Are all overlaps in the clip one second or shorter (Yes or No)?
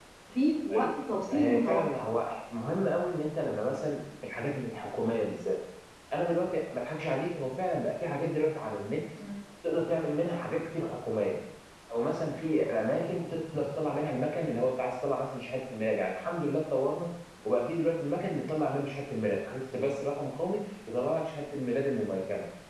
No